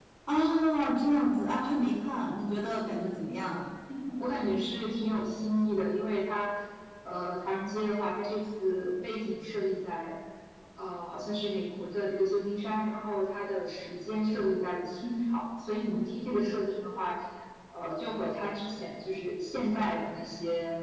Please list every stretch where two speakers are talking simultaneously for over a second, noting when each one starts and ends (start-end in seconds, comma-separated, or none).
none